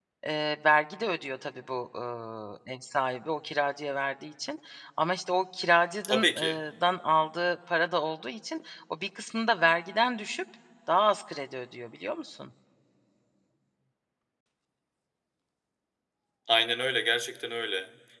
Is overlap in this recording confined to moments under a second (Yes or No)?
Yes